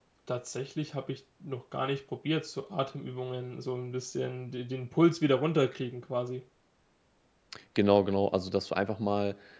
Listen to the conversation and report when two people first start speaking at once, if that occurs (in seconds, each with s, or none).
none